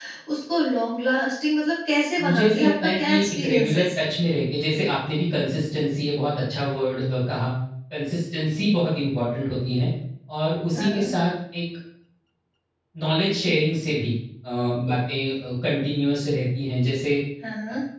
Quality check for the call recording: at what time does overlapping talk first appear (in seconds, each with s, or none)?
2.2 s